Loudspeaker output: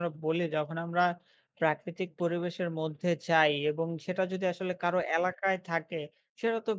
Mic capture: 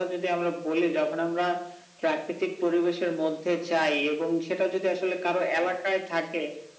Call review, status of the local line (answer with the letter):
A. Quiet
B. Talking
A